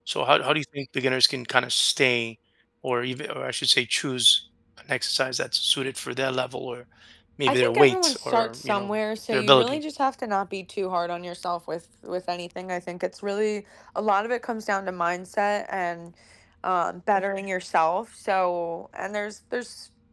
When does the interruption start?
7 s

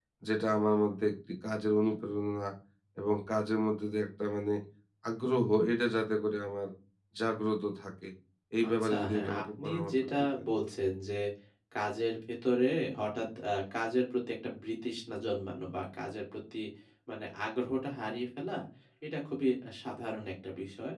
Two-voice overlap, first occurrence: 9 s

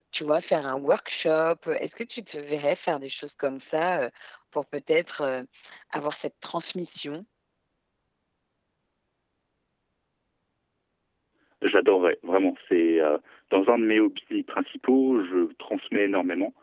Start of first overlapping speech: none

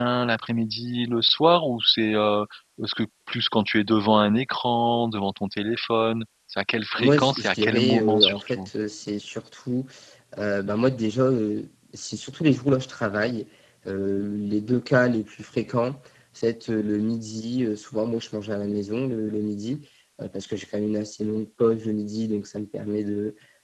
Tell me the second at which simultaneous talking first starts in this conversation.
7 s

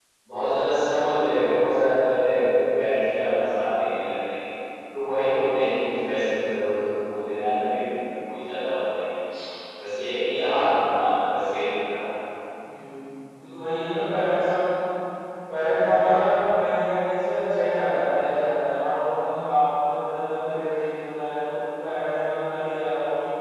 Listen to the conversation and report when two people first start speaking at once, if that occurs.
none

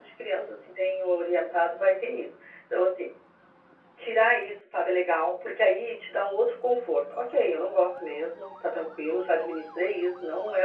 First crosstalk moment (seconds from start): none

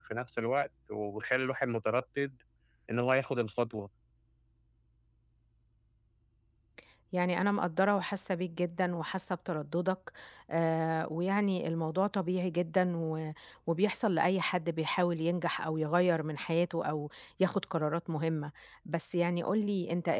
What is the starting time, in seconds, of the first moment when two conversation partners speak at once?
none

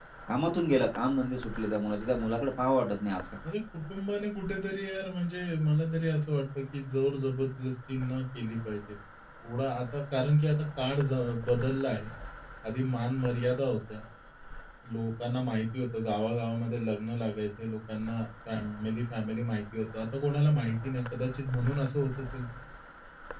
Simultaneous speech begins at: none

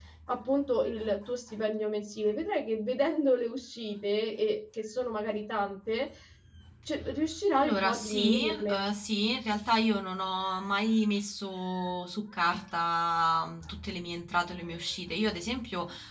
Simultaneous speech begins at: 8 s

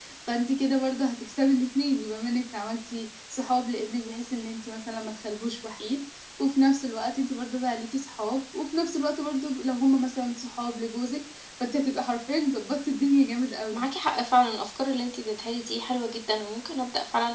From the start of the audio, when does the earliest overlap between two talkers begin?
none

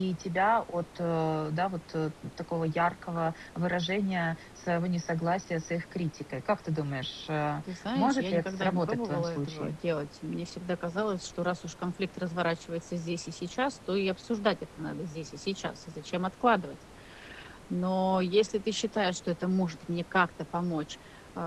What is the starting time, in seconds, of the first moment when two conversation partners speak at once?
8 s

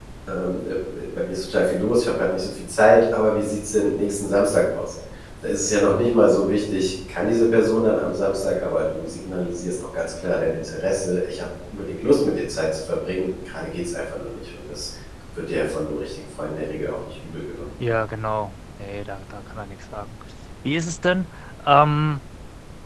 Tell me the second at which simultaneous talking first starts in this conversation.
none

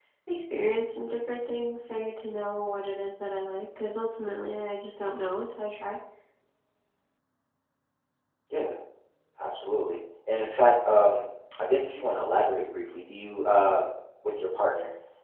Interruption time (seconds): none

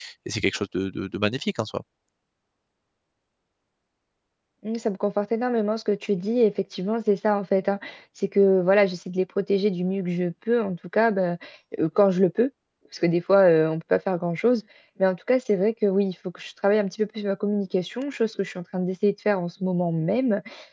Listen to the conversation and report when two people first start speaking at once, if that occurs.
none

